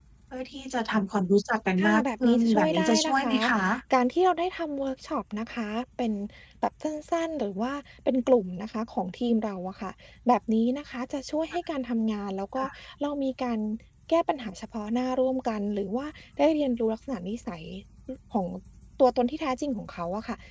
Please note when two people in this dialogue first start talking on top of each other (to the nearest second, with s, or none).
2 s